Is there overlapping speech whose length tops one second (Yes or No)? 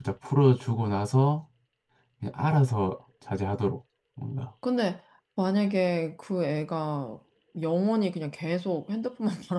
No